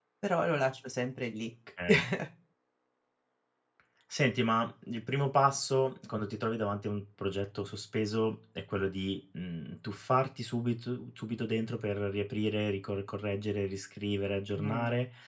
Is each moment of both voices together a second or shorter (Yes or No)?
Yes